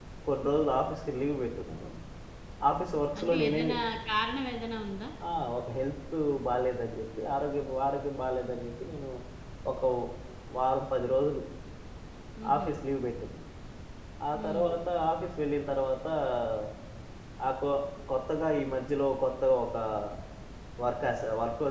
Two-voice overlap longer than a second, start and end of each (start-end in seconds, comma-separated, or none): none